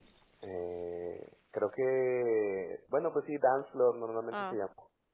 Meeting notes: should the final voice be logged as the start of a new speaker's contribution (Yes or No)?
Yes